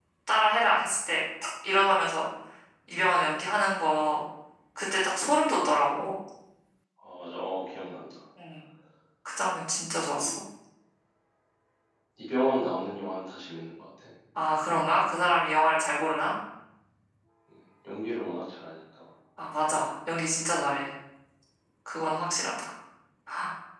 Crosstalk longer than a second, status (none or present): none